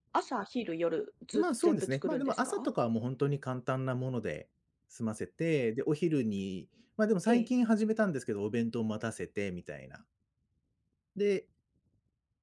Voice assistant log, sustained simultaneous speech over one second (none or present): present